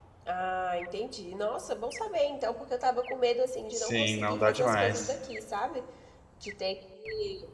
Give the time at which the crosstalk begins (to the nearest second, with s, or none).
4 s